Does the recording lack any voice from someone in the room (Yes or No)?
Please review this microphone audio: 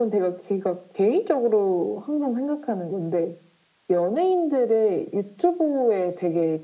Yes